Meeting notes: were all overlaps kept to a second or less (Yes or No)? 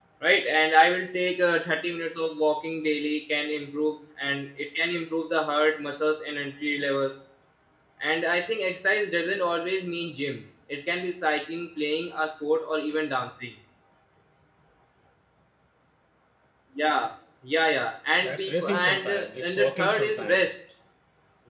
No